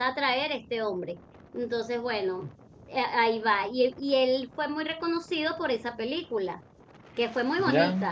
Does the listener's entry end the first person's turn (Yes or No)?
No